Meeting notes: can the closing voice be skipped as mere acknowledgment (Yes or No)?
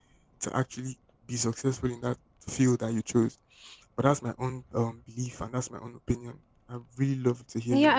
No